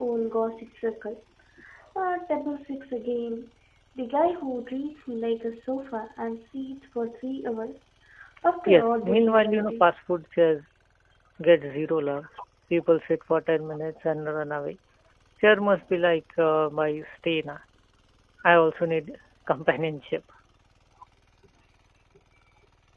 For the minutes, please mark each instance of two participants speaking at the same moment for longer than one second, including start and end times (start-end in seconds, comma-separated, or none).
8.7-9.9